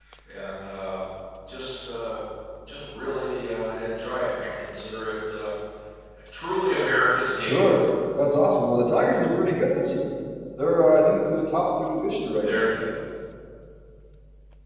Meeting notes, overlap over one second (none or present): none